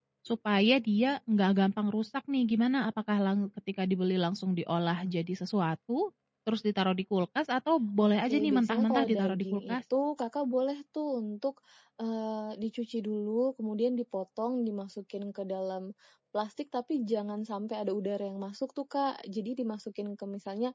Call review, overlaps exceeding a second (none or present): present